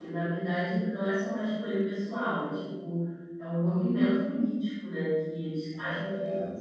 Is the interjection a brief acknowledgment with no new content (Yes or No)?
Yes